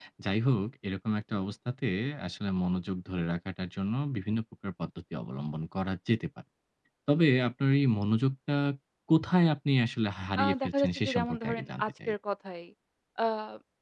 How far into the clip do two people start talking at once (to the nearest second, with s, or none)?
10 s